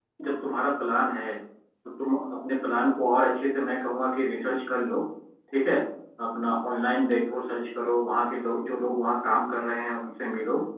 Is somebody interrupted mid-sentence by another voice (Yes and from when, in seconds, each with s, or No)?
No